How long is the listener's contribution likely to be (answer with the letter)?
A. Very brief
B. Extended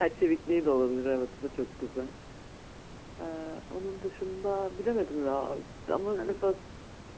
A